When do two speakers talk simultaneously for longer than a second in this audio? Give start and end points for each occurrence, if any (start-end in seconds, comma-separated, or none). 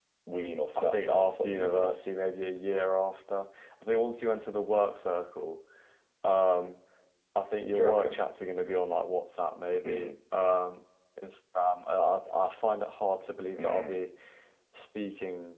0.8-1.9